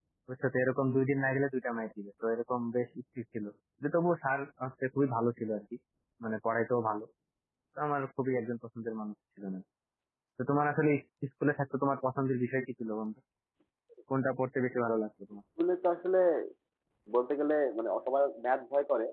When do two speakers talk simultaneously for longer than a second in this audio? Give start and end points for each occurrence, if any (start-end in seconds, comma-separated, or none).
none